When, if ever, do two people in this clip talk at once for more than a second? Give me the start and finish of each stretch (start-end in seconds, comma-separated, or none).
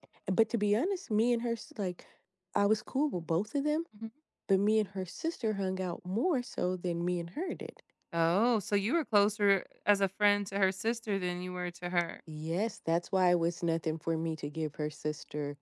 none